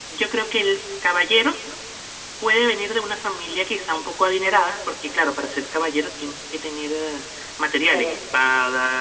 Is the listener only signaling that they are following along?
Yes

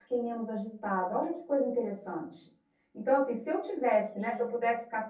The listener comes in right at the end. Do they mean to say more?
No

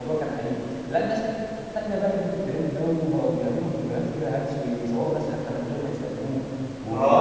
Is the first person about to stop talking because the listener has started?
Yes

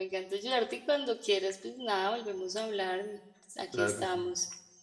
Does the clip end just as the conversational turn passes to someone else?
Yes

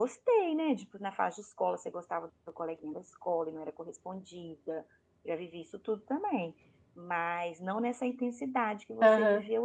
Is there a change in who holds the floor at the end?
Yes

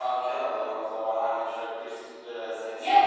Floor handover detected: Yes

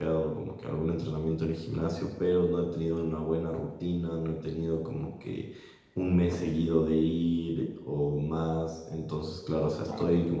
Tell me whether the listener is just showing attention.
Yes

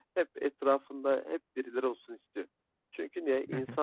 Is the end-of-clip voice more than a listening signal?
No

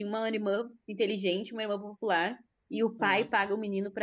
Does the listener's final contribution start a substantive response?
No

